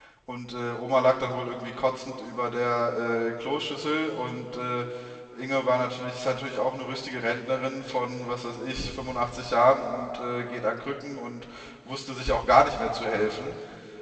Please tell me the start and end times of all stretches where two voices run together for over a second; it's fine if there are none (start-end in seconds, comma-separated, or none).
none